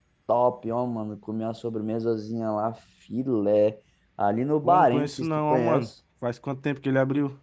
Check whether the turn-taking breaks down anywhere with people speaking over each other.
Yes, from 4.6 s

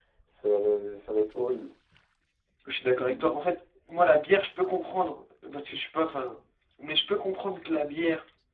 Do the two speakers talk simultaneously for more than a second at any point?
No

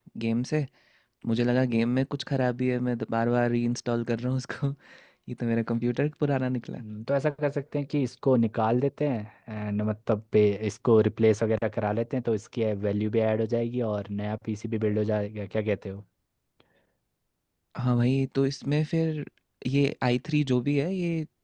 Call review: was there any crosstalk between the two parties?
No

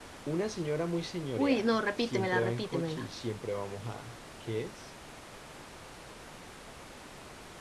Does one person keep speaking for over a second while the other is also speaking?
Yes, from 1.4 s

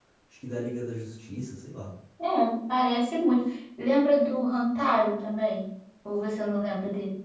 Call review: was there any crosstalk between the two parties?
No

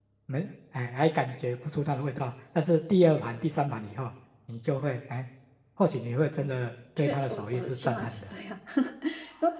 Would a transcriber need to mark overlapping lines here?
Yes, from 7.0 s

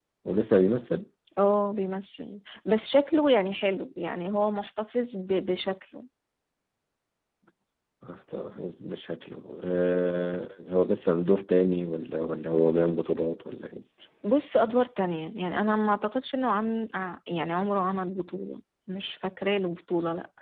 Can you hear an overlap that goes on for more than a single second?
No

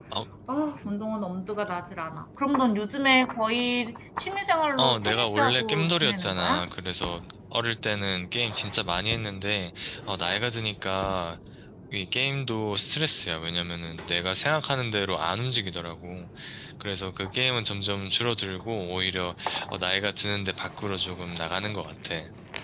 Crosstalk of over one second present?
Yes, from 4.8 s

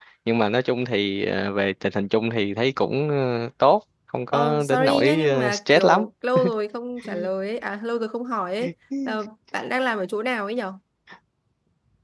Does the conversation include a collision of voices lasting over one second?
Yes, from 4.3 s

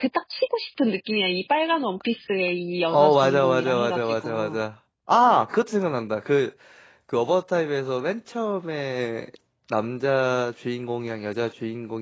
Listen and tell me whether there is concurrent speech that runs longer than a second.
Yes, from 2.9 s

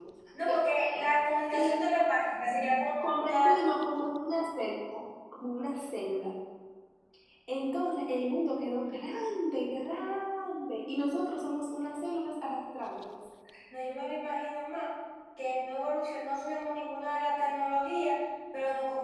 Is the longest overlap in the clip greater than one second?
No

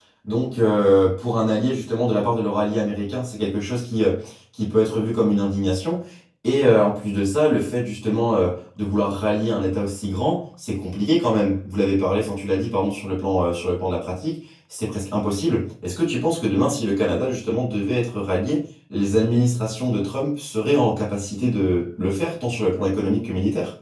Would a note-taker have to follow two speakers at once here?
No

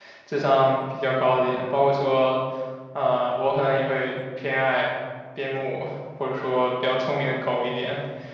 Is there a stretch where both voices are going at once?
No

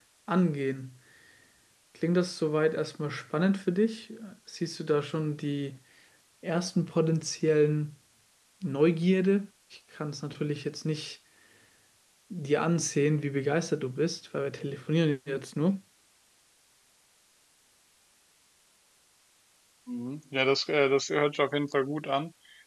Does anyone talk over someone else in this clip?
No

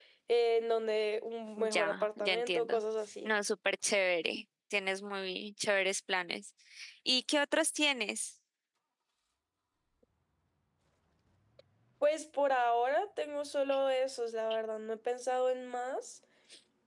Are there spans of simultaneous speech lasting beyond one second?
Yes, from 1.6 s

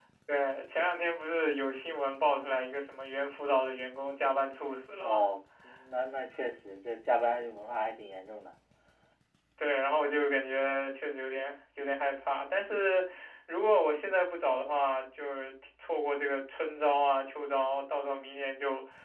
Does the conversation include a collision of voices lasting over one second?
No

